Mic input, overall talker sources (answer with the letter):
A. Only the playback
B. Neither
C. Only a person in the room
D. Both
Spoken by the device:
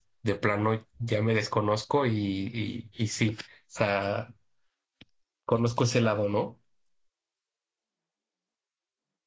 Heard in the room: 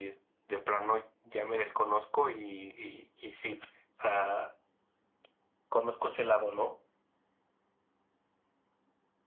A